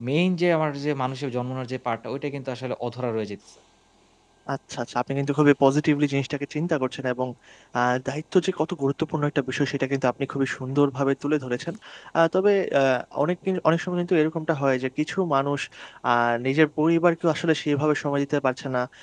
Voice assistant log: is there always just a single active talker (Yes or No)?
Yes